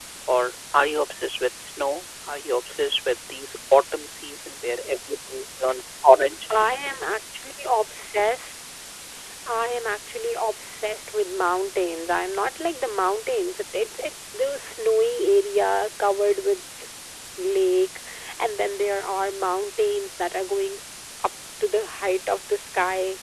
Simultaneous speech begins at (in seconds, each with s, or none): none